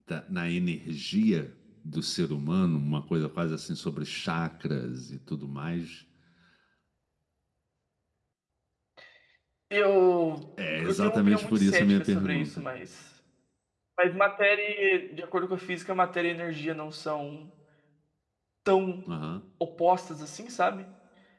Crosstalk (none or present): present